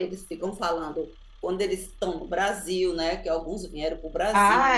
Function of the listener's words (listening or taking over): taking over